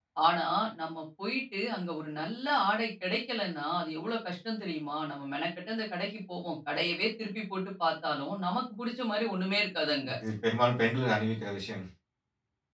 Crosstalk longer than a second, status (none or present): none